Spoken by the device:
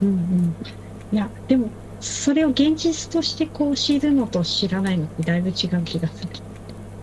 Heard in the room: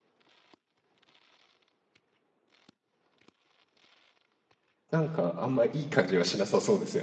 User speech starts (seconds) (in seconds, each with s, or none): 4.9 s